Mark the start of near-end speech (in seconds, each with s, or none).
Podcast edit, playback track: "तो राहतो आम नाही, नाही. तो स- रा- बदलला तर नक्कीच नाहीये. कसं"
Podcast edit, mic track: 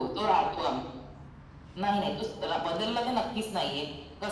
none